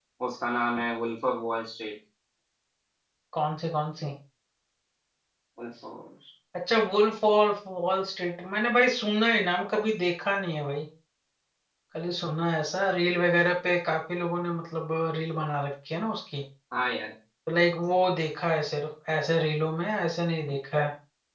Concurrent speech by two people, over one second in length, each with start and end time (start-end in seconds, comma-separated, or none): none